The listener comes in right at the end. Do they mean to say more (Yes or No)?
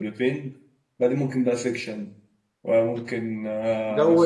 Yes